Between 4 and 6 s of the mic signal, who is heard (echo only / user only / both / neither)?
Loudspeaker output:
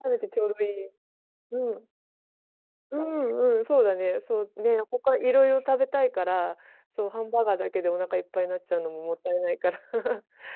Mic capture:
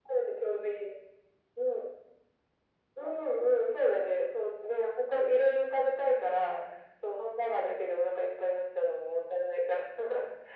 echo only